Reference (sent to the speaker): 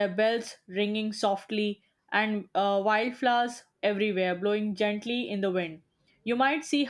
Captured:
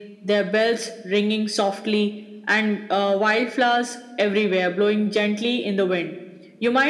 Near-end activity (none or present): none